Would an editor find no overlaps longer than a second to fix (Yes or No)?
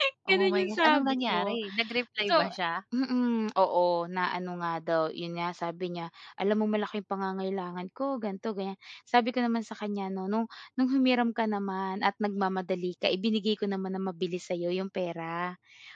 No